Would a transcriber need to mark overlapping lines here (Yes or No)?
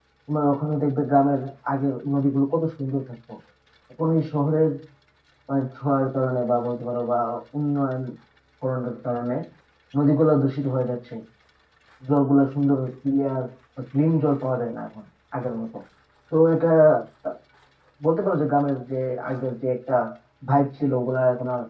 No